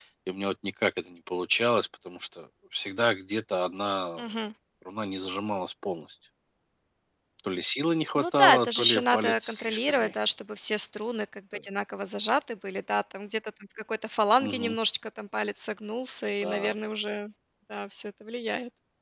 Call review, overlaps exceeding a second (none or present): present